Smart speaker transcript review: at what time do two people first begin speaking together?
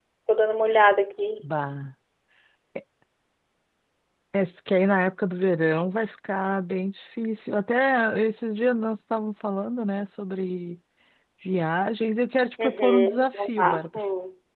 12.6 s

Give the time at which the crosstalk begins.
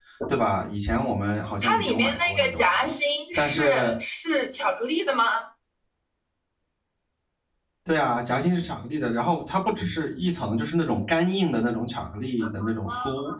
1.6 s

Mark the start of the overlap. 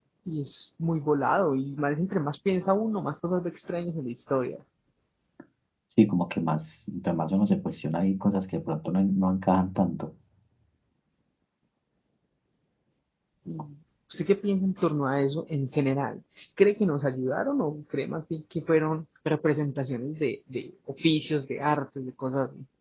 none

